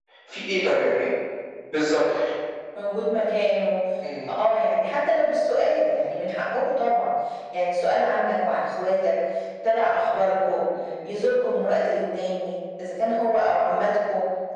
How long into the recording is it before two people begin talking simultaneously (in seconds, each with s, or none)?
none